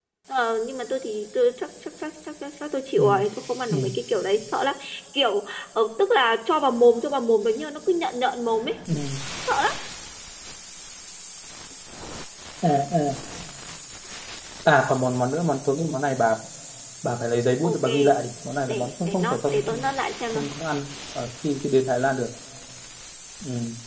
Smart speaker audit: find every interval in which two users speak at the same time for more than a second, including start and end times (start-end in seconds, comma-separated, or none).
18.7-19.9